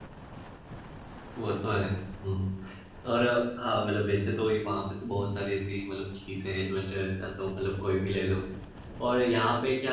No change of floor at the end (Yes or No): Yes